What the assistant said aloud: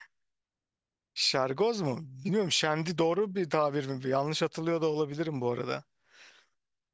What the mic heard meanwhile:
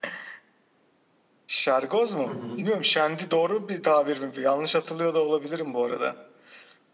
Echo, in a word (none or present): present